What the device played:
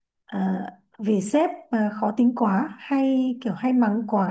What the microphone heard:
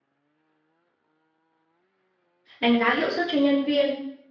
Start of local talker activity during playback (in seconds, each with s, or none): 2.6 s